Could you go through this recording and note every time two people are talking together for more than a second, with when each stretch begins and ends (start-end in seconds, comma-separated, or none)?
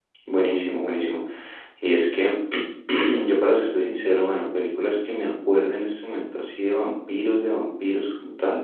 none